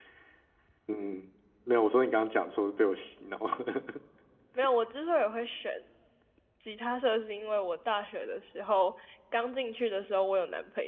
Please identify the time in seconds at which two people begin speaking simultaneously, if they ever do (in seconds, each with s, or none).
none